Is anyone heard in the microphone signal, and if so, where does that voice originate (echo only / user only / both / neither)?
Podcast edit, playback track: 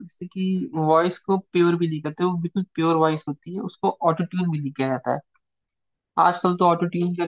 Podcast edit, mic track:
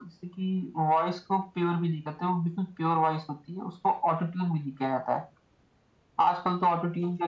echo only